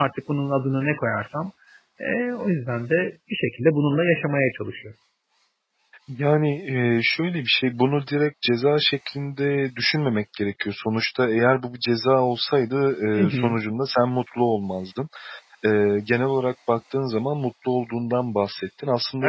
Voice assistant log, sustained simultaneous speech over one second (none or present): none